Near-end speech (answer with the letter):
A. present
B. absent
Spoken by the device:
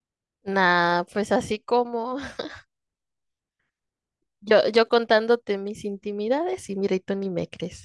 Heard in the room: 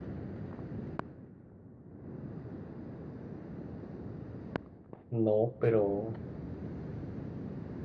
A